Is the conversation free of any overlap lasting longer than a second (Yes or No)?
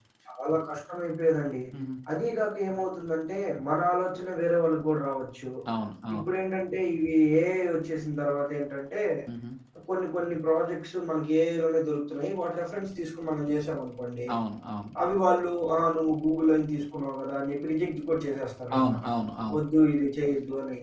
Yes